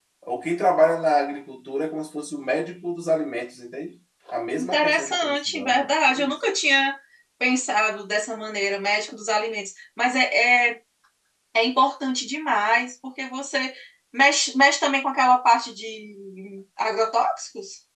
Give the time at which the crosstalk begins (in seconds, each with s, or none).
4.6 s